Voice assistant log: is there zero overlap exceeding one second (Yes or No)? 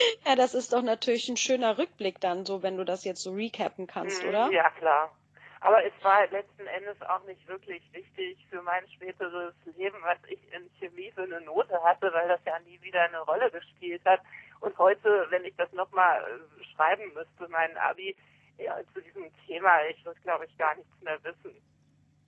Yes